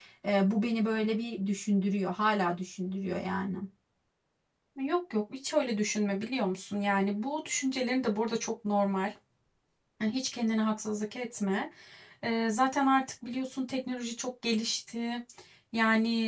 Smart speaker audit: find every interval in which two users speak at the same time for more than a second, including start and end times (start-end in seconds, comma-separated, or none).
none